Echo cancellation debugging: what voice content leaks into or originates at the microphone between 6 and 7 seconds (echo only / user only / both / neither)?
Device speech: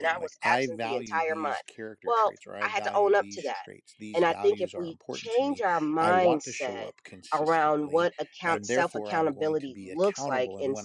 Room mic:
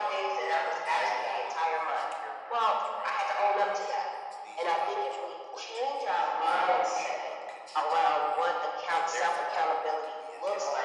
echo only